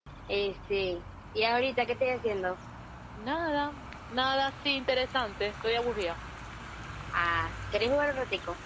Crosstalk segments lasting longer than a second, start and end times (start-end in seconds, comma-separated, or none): none